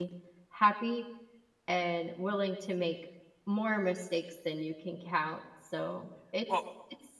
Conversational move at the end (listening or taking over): listening